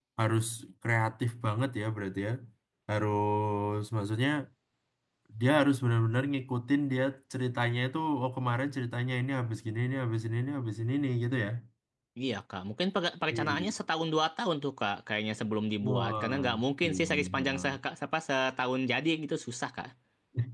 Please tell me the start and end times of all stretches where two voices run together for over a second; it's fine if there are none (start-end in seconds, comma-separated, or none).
15.8-17.8